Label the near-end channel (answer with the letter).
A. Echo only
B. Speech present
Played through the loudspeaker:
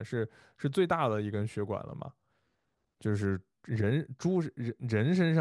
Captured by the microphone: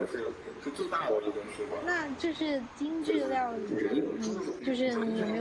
B